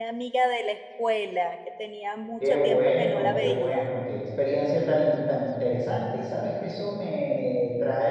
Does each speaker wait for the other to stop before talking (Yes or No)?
No